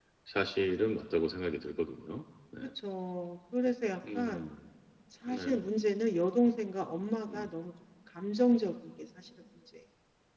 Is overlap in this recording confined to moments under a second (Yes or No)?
Yes